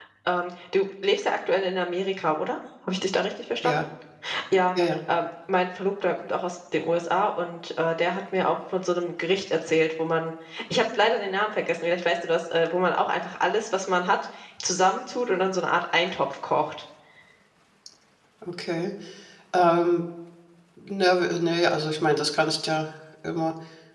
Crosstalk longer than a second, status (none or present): none